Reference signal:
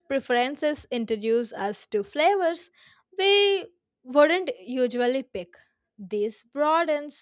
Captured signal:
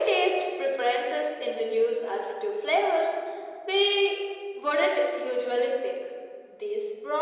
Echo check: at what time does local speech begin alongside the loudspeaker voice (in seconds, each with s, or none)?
none